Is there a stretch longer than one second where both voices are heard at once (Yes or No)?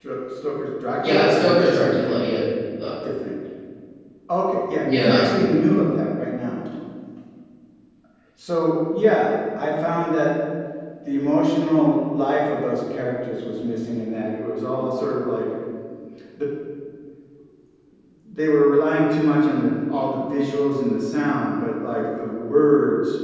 Yes